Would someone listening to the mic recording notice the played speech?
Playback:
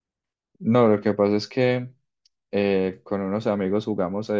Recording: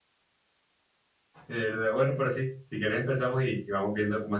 No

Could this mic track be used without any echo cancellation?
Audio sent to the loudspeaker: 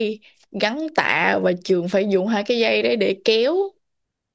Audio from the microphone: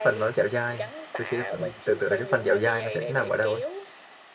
No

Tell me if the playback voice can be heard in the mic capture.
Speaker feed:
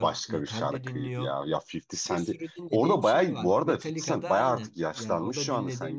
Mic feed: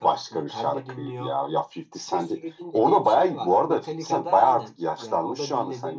Yes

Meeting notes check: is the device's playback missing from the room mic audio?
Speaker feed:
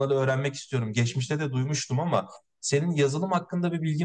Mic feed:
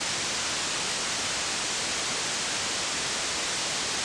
Yes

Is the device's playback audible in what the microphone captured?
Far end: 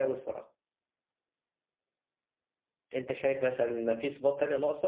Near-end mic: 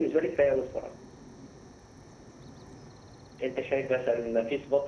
Yes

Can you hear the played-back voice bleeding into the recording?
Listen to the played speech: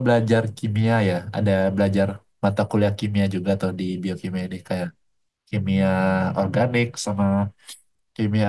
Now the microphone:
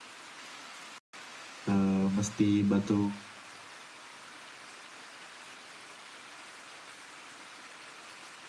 No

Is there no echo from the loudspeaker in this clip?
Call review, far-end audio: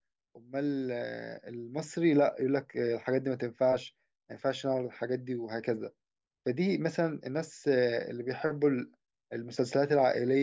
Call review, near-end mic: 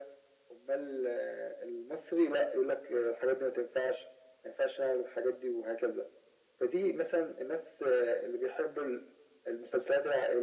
No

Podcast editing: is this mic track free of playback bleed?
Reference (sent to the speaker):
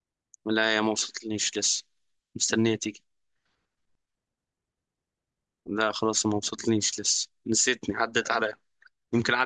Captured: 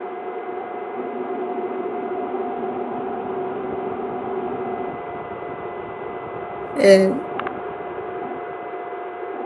Yes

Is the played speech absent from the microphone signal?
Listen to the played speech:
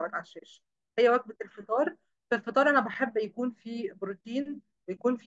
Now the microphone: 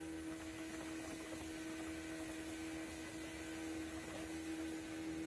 Yes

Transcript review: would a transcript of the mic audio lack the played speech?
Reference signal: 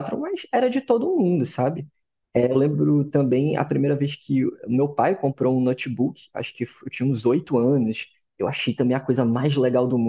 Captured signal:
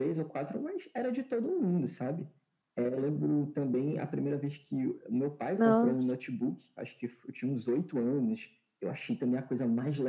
No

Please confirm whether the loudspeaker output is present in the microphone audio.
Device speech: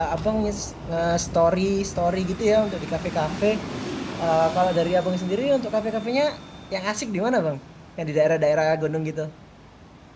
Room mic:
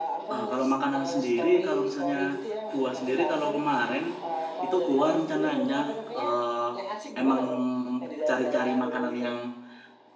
Yes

